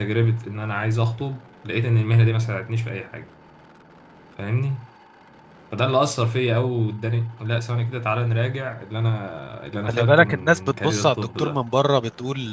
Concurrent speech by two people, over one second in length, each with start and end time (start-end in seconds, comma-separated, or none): 9.9-11.6